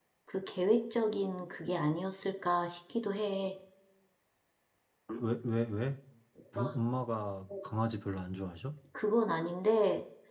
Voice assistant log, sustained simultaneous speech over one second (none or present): none